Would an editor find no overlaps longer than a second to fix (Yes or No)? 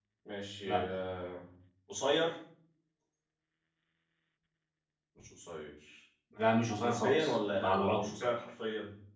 No